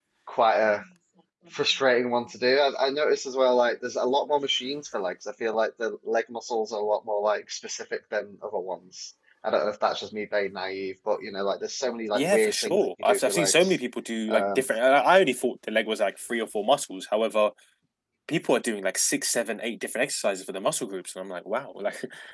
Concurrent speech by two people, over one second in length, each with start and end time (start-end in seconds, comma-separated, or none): 12.1-13.8